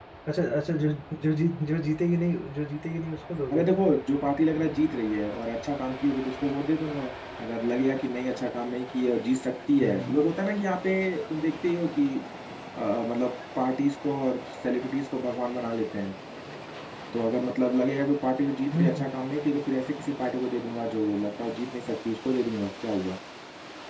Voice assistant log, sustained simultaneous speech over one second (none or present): none